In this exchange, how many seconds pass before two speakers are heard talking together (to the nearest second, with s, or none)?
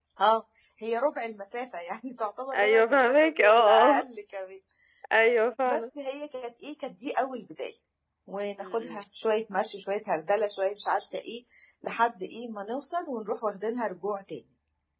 3 s